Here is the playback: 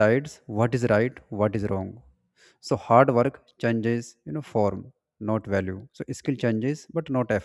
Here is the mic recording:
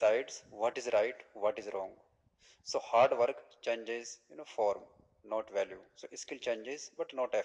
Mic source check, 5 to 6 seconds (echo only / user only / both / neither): echo only